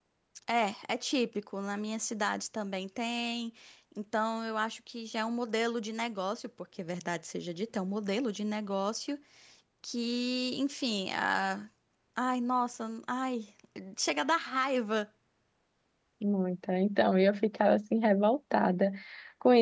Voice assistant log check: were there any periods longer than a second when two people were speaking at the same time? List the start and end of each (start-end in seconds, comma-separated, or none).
none